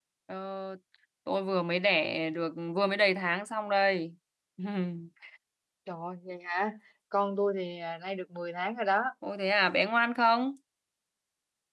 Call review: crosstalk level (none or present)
none